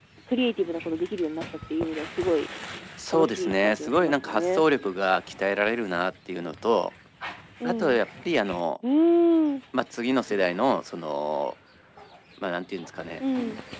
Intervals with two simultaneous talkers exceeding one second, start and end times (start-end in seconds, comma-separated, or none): 3.1-4.6